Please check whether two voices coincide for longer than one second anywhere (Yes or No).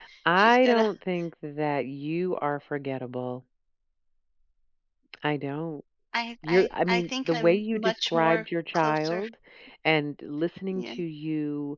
Yes